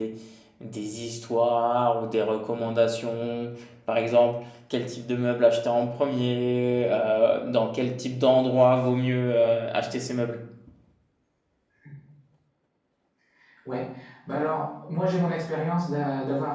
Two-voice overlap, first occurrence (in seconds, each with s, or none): none